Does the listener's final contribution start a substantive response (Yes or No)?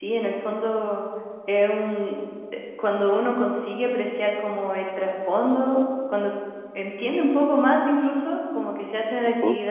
No